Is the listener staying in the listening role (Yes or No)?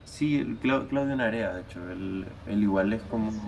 Yes